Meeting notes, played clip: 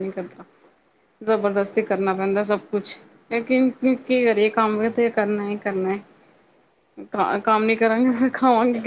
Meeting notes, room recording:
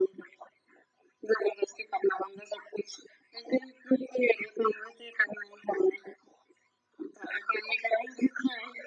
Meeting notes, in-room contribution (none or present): none